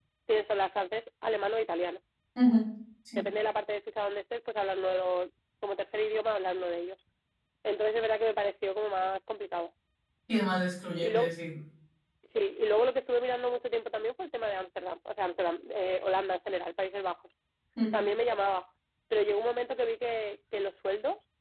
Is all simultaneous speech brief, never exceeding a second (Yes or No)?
Yes